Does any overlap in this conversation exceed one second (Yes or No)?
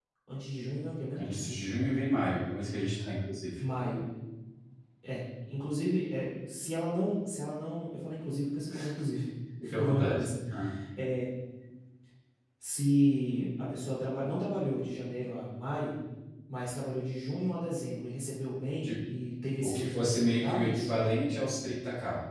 Yes